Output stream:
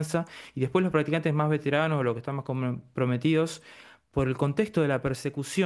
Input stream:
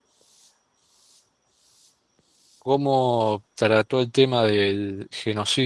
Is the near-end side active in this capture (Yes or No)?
Yes